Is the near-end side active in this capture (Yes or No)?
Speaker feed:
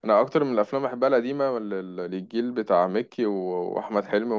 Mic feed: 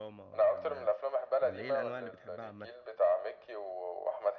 Yes